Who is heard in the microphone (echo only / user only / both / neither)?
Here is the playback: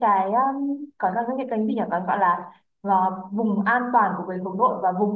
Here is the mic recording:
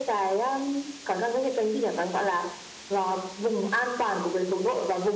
echo only